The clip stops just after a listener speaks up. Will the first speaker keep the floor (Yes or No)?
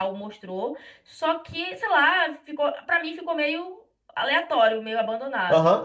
No